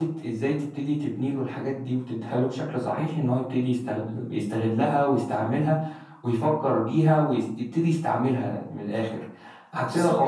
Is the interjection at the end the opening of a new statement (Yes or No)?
Yes